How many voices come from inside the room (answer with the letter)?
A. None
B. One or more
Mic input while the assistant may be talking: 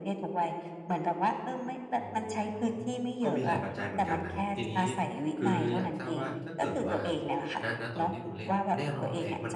B